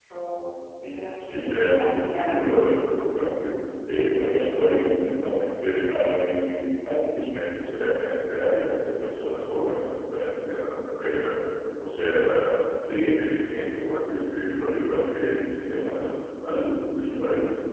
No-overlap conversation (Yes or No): No